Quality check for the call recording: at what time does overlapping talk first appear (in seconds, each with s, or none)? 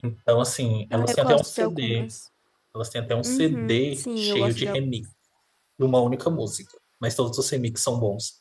0.9 s